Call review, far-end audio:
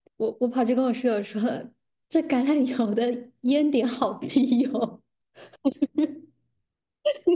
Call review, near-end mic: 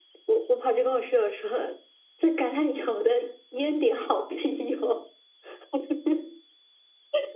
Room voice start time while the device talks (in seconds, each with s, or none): none